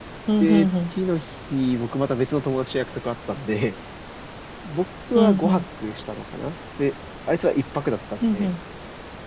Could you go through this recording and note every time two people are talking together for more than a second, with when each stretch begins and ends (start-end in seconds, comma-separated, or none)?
none